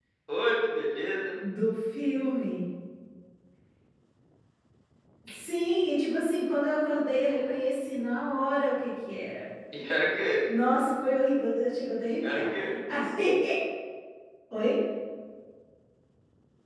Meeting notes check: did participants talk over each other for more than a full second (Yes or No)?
No